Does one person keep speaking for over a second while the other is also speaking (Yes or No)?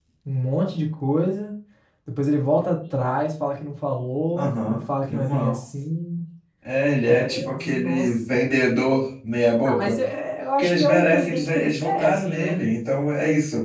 Yes